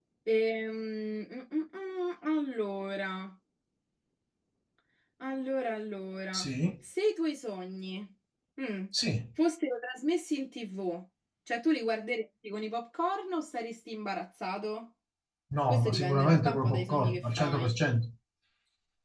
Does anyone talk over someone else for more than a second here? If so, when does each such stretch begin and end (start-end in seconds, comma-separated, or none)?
15.7-17.7